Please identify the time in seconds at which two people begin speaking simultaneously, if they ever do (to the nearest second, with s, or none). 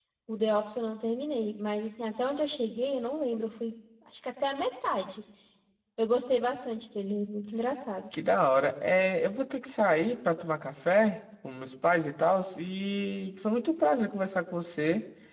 none